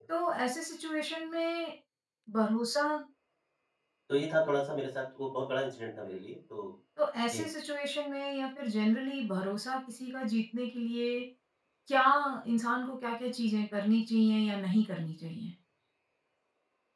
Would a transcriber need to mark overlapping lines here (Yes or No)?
No